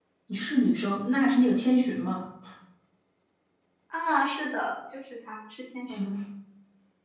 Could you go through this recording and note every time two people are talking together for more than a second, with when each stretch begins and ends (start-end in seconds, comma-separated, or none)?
none